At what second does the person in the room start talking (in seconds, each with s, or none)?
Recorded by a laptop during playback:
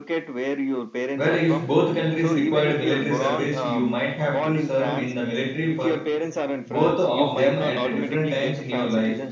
1.2 s